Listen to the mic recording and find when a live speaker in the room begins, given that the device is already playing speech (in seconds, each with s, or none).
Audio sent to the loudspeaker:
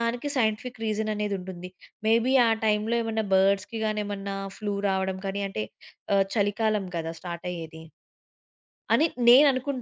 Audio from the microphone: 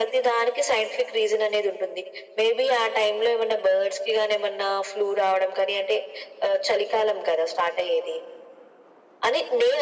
none